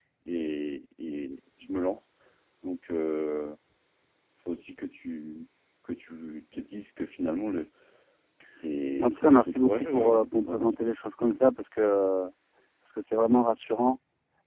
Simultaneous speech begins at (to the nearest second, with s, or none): 9 s